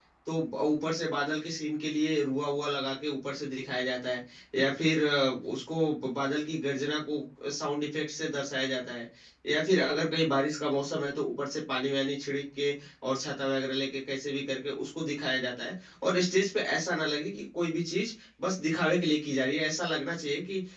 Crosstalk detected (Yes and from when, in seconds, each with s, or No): No